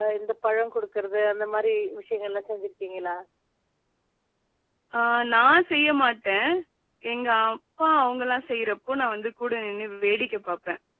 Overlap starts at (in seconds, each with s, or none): none